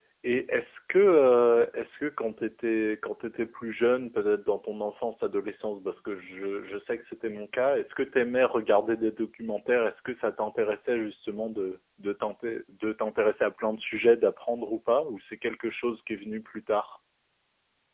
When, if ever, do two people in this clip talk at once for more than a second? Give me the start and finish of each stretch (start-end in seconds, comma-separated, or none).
none